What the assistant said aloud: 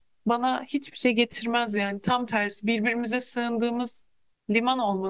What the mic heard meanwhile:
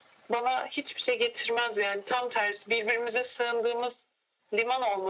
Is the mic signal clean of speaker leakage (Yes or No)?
No